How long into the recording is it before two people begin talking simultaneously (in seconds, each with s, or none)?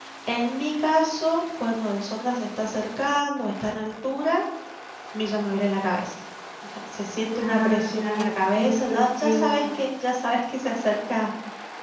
7.3 s